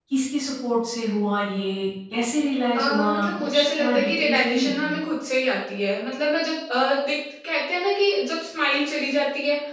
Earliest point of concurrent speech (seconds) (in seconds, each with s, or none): 2.7 s